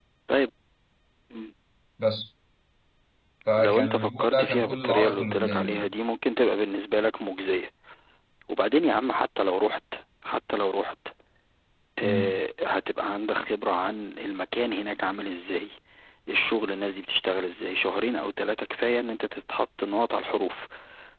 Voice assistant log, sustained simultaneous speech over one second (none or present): present